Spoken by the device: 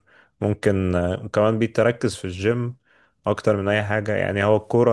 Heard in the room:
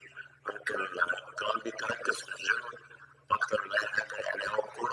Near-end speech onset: none

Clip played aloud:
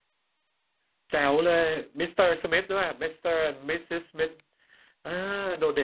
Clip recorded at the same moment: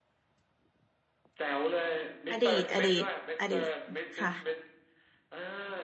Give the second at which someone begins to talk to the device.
2.3 s

